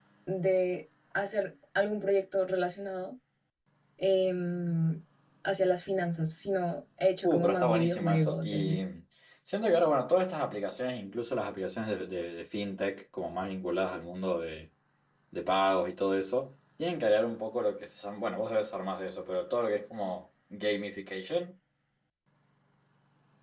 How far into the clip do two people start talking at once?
7.2 s

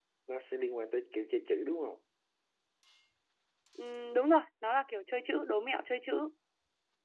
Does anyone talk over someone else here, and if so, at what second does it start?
none

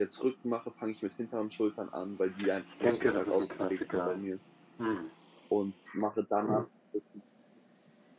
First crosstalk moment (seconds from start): 2.9 s

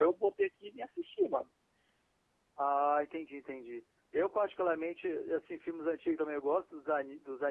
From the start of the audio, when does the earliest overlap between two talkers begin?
none

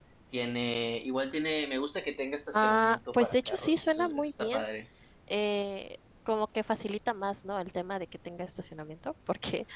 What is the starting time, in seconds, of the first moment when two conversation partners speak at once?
2.5 s

